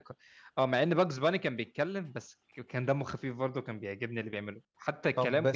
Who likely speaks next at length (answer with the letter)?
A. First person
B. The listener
B